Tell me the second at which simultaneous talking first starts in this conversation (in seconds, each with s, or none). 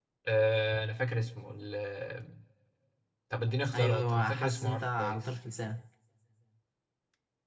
3.8 s